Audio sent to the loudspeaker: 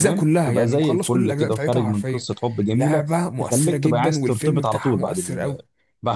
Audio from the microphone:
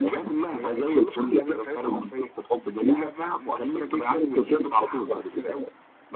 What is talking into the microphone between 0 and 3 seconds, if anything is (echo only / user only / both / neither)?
echo only